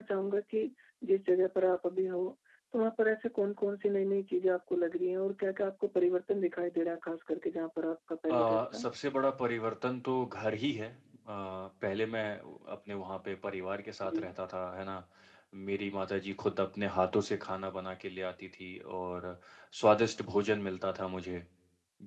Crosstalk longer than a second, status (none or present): none